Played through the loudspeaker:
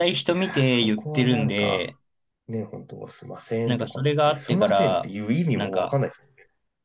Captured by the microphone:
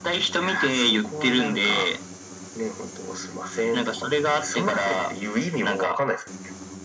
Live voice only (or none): none